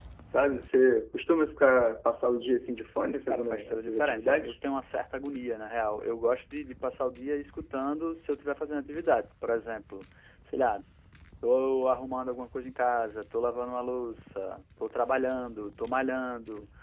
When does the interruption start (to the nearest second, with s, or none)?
3 s